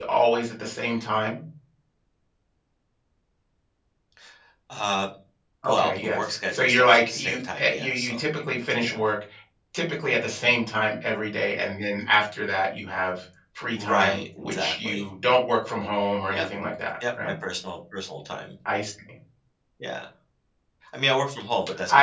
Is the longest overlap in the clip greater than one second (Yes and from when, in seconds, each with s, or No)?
Yes, from 5.7 s